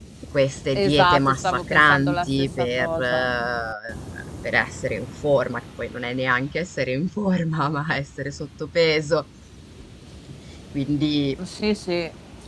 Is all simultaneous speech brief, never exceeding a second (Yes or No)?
No